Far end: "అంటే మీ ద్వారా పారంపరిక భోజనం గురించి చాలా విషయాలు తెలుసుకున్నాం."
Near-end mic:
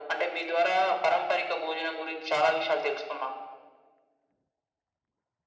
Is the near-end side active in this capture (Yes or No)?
No